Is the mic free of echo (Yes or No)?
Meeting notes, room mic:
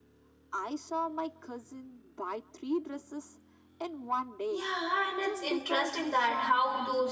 No